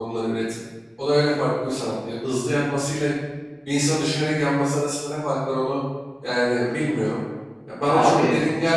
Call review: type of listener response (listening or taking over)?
listening